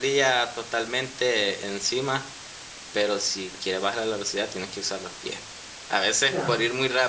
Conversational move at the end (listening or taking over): listening